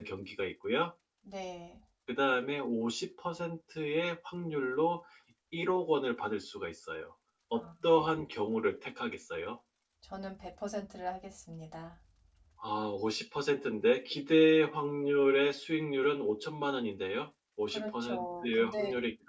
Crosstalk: present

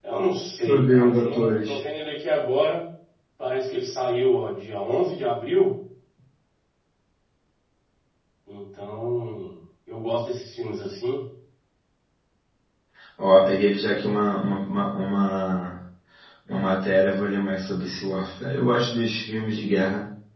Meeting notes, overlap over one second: present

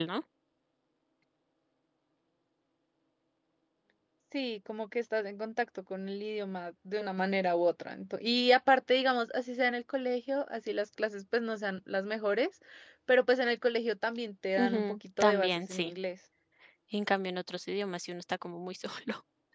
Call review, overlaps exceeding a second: present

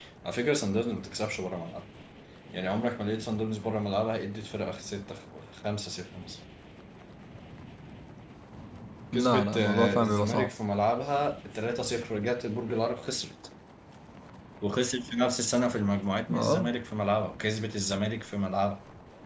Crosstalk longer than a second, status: present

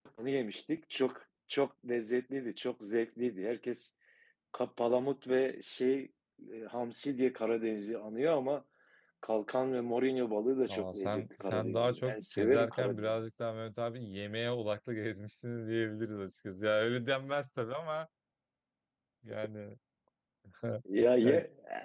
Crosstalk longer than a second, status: present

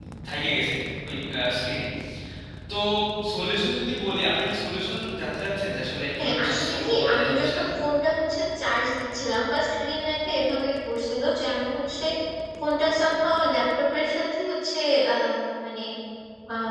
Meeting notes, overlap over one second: present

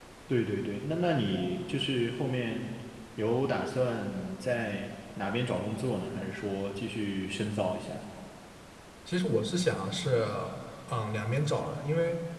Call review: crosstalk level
none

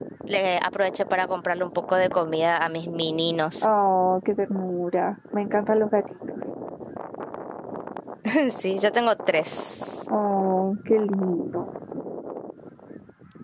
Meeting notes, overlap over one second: none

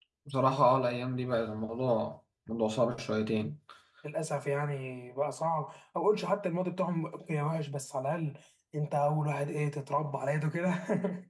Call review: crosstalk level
none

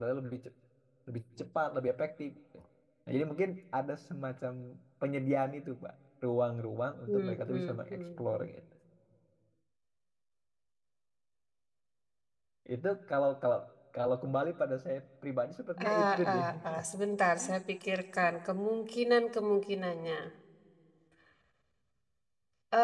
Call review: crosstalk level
present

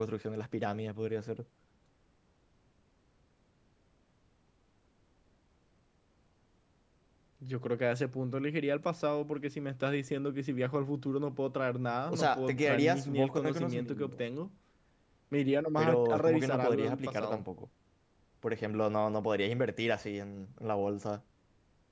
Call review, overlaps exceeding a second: present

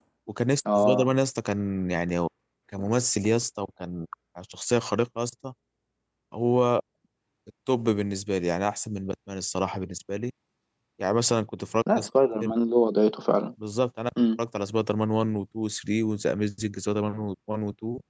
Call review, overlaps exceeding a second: none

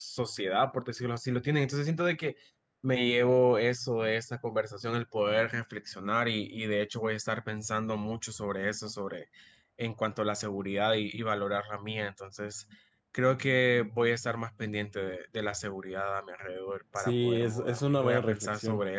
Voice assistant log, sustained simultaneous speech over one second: present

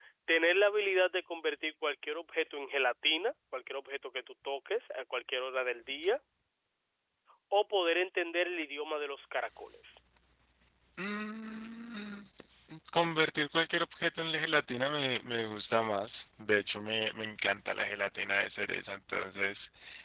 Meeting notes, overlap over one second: none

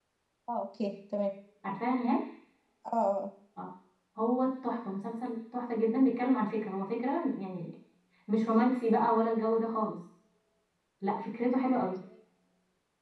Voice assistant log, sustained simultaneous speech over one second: none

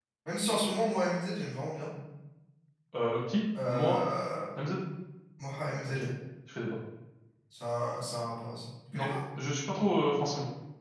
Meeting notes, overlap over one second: none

